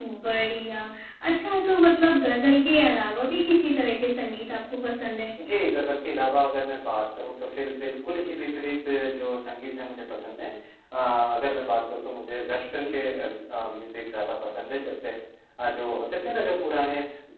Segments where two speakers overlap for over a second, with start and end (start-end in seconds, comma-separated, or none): none